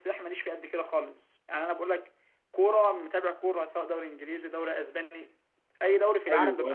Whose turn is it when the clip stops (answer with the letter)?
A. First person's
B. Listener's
B